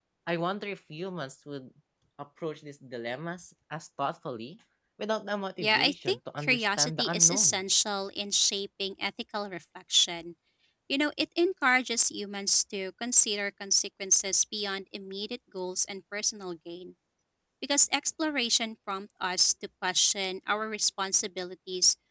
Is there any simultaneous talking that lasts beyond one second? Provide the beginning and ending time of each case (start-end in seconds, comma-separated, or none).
5.6-7.6